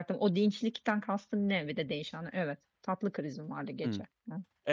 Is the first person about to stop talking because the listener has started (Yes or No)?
Yes